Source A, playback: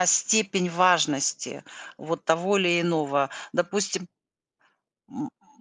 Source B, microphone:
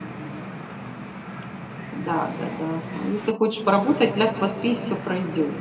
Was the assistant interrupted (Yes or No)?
Yes